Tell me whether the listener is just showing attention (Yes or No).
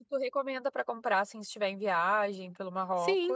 No